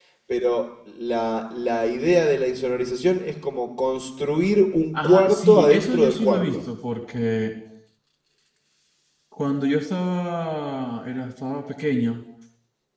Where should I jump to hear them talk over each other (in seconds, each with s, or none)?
4.9 s